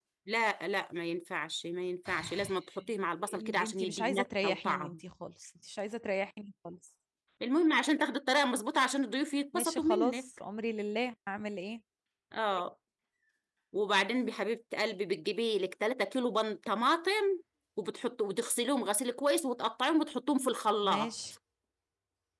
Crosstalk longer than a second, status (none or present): present